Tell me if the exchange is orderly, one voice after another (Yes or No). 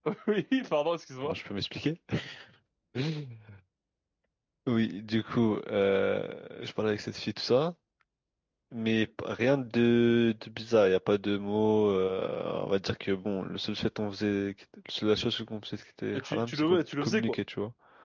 No